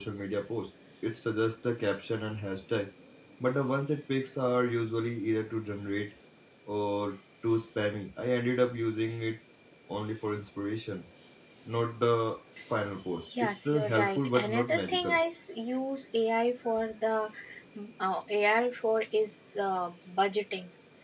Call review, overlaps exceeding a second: present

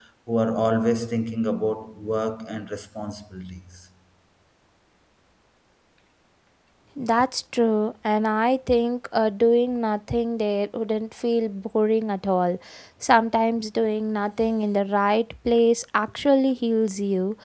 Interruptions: none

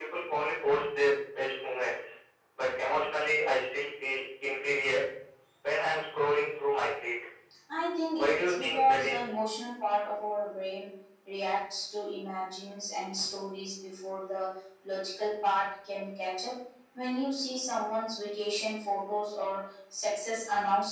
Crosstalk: present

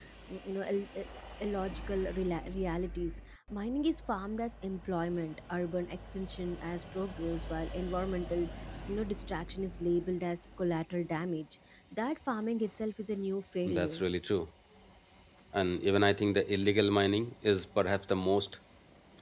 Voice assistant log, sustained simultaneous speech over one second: none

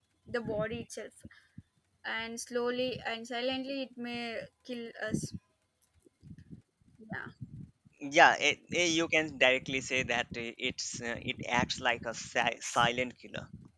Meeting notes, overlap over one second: none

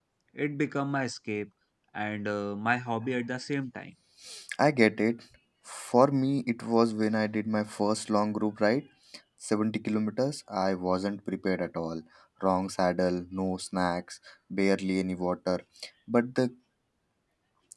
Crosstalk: none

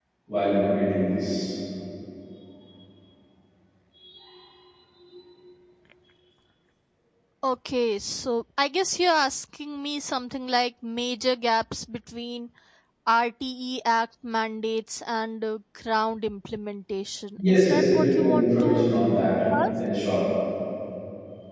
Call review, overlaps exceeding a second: present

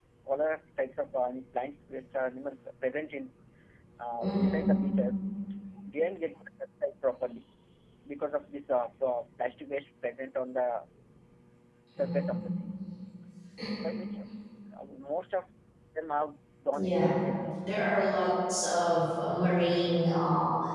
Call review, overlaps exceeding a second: none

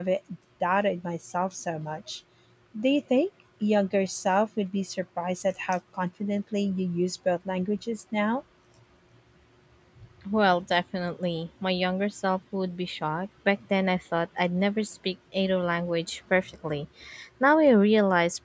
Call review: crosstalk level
none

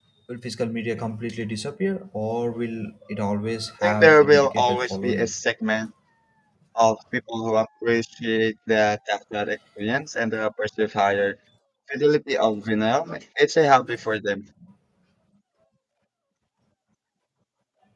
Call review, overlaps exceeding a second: present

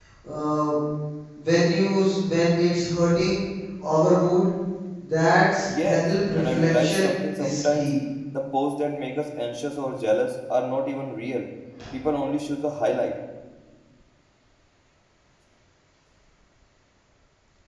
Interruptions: present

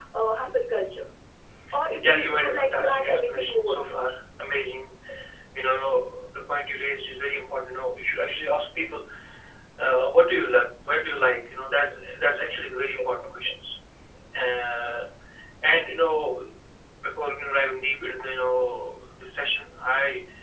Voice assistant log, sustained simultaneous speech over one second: present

